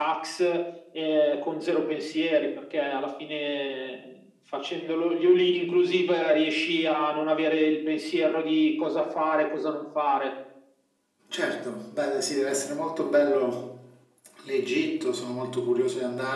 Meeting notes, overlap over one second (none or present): none